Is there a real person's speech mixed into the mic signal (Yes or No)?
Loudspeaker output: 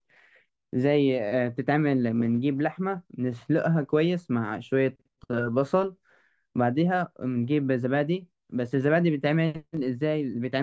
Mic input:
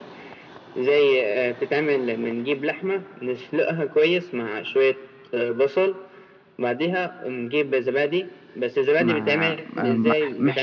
Yes